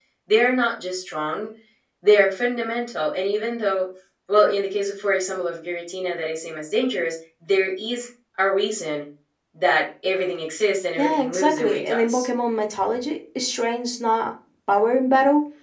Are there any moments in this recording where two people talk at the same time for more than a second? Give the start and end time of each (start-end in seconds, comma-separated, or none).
11.0-12.3